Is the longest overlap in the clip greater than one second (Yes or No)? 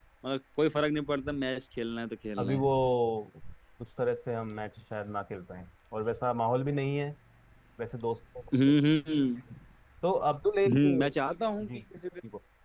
No